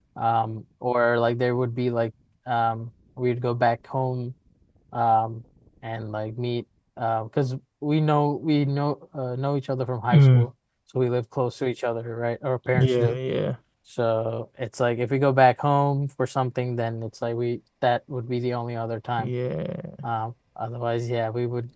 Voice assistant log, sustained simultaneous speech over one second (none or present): none